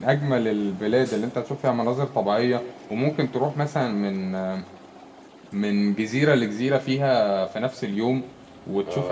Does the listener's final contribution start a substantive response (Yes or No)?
Yes